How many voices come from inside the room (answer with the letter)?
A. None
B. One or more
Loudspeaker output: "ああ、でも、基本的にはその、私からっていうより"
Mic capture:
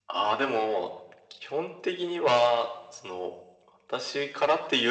A